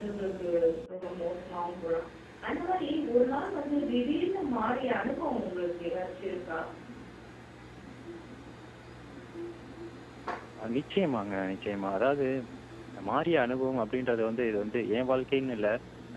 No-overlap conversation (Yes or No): Yes